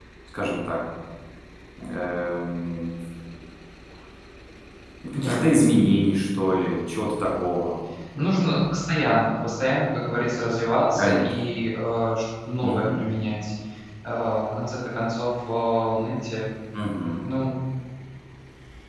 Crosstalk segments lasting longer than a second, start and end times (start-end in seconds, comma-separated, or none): none